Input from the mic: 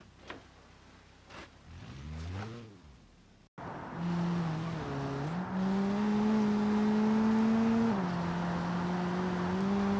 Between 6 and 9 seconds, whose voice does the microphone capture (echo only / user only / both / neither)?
neither